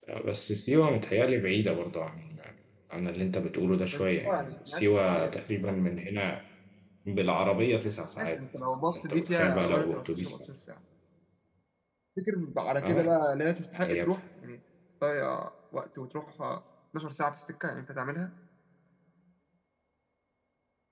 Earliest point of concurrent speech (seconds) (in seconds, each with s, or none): 3.9 s